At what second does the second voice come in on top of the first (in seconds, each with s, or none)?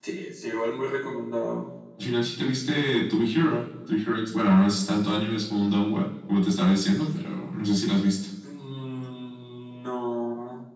none